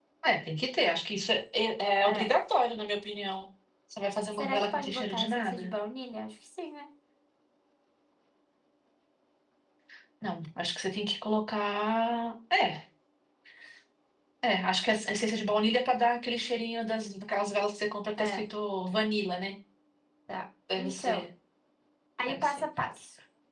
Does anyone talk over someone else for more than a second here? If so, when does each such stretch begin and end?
4.3-5.7

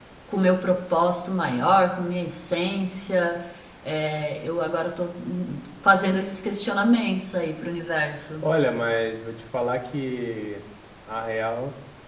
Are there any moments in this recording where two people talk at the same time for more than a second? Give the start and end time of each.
none

